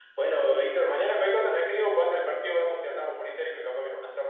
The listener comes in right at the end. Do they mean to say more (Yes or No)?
No